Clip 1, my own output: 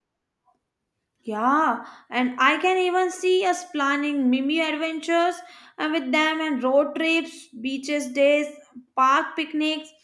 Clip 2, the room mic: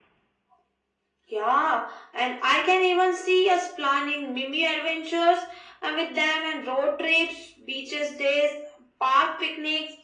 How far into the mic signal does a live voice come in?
none

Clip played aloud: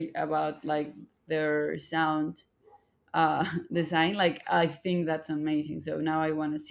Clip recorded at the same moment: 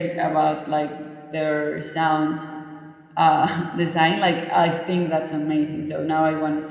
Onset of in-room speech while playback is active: none

